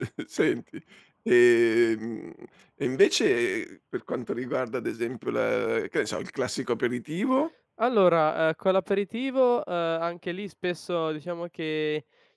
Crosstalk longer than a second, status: none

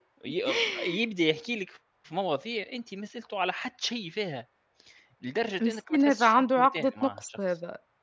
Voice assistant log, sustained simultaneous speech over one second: present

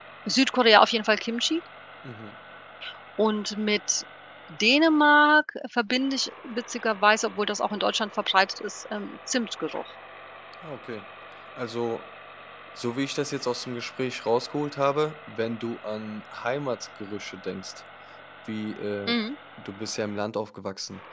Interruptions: none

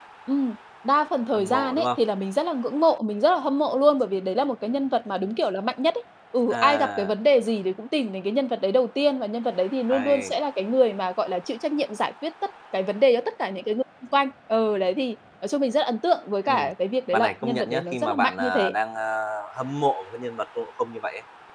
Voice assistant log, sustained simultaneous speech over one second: present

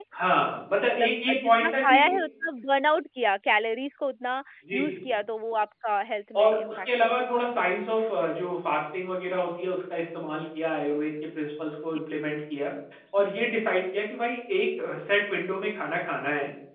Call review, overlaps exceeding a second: present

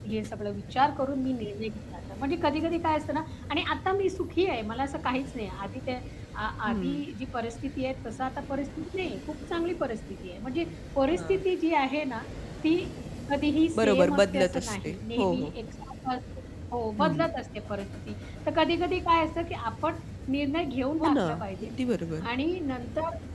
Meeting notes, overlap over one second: present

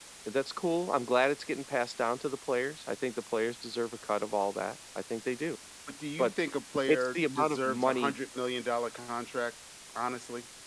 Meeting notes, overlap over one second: present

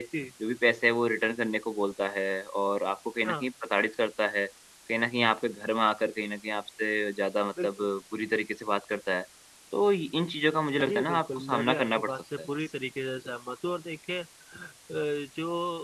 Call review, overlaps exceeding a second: present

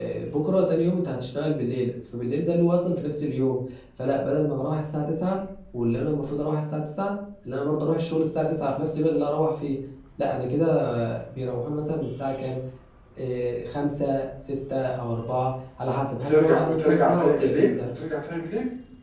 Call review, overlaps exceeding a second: present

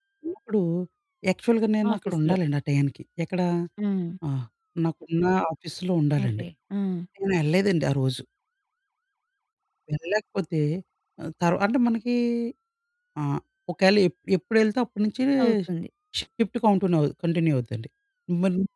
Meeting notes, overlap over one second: none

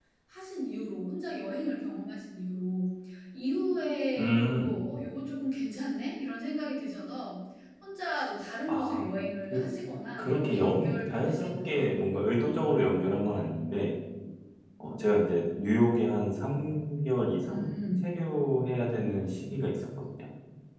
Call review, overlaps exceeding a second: present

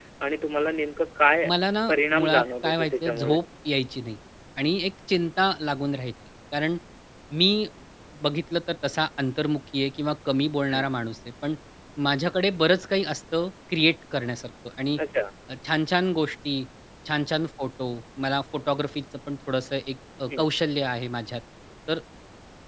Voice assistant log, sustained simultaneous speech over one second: present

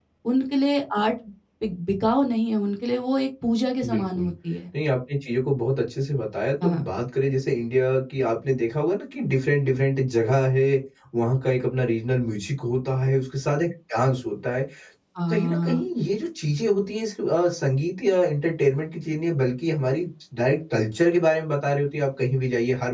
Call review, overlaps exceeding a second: none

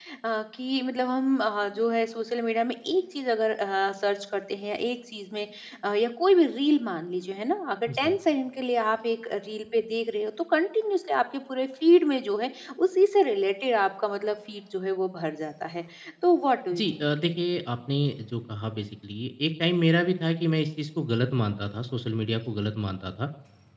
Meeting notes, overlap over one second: none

